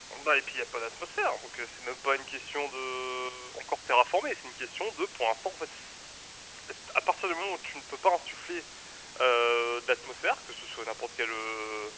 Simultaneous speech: No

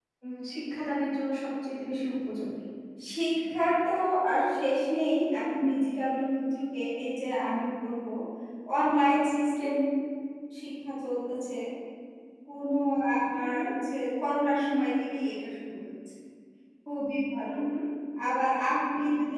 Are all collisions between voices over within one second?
Yes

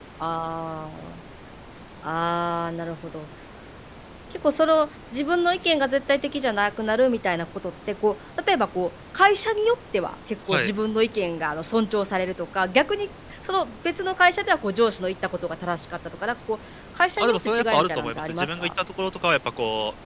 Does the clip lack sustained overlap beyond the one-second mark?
No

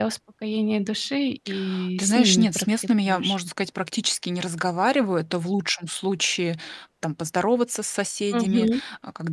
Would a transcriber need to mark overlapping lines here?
Yes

